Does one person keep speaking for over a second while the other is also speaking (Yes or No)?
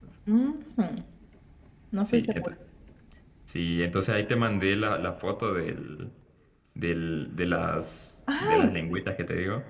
No